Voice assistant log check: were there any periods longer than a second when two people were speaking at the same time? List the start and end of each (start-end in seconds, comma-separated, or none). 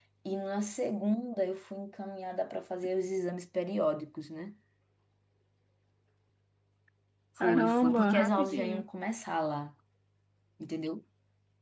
7.4-8.9